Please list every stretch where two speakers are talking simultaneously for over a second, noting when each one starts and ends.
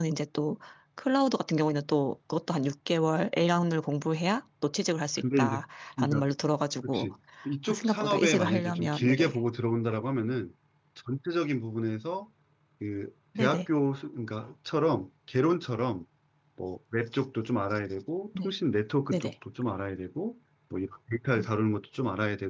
7.7-9.4

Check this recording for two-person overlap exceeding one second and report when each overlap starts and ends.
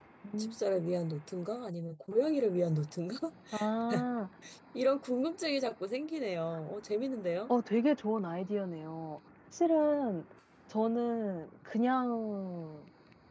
none

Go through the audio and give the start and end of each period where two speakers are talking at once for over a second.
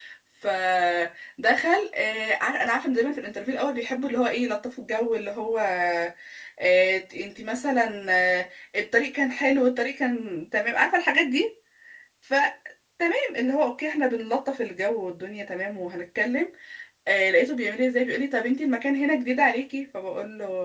none

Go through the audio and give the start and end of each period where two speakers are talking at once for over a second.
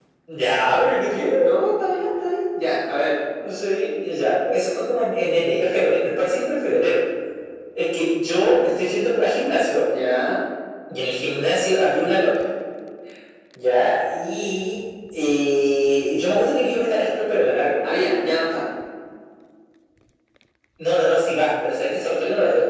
none

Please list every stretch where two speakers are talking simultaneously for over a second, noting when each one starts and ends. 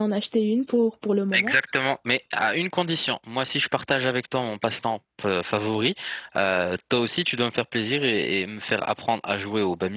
none

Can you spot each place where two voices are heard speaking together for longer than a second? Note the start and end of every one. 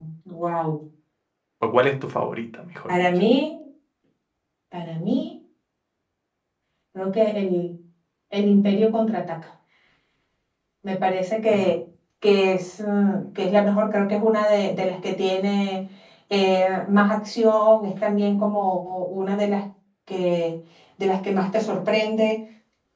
none

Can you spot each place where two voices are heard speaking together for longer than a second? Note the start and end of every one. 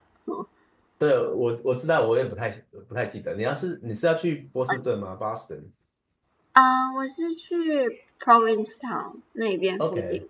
none

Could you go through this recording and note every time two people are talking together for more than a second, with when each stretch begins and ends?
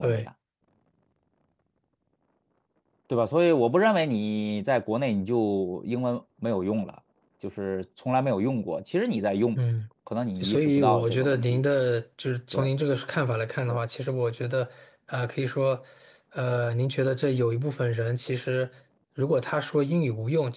10.4-11.6

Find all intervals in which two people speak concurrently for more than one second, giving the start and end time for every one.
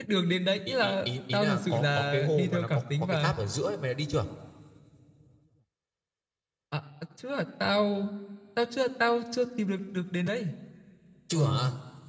0.7-3.3

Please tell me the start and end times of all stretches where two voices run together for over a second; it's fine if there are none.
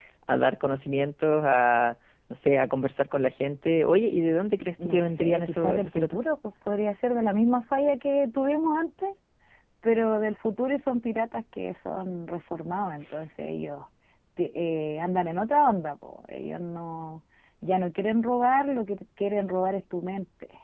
4.8-6.2

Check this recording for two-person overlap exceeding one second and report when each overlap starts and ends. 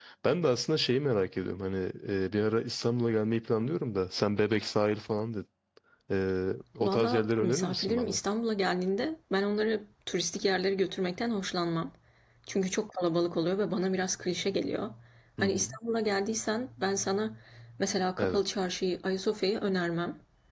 6.8-8.2

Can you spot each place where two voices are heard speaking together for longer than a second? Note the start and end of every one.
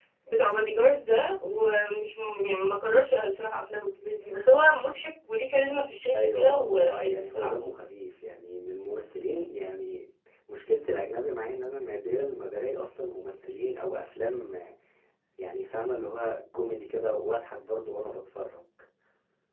6.2-7.5

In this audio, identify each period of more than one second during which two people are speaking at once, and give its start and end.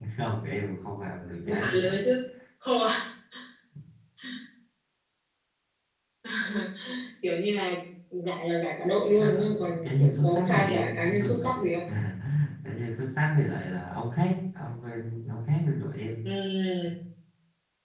9.1-11.6

